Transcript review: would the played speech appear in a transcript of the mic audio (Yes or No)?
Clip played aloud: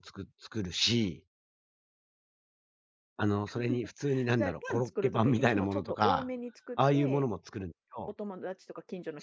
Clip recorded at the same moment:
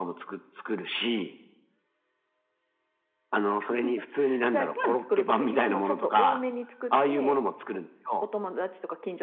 Yes